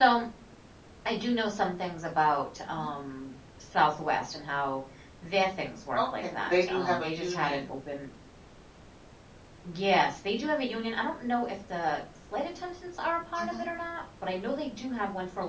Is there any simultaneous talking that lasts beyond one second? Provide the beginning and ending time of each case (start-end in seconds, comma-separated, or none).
6.0-7.7